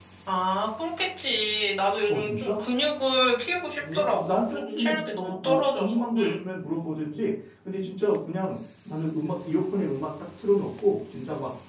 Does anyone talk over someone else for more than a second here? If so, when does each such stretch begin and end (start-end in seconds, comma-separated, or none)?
3.9-6.4